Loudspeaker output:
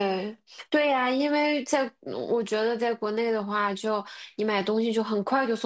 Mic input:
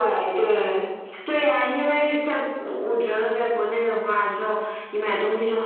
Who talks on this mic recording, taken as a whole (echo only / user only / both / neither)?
echo only